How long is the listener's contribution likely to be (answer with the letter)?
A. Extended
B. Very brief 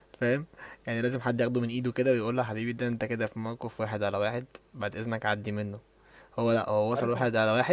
B